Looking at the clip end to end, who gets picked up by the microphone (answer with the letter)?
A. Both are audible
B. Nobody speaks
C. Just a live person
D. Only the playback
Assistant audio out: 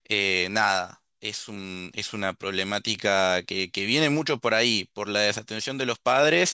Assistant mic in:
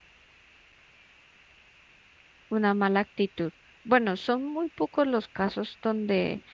C